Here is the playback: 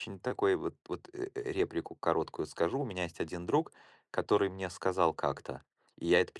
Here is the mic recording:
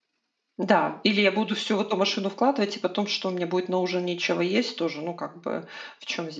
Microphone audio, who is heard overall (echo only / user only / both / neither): user only